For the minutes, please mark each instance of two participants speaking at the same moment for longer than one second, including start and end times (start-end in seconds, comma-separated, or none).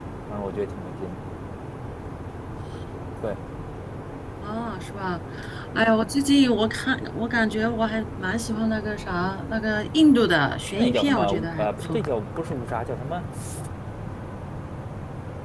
10.8-12.0